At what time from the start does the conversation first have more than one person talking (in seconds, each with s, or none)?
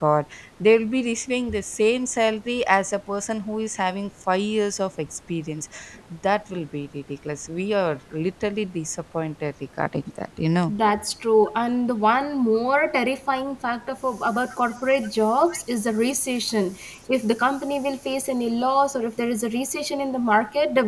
none